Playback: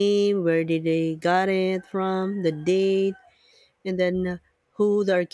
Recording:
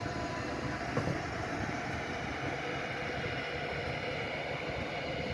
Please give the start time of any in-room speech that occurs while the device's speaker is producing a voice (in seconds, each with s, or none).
none